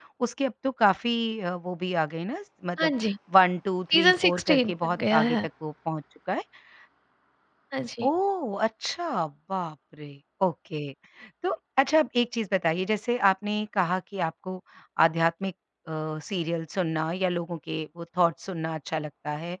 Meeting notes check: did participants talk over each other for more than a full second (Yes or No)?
Yes